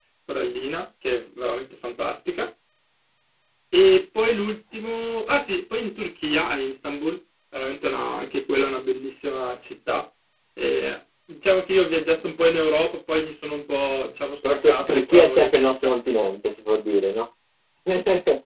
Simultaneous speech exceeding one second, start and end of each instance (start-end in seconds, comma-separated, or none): 14.5-15.7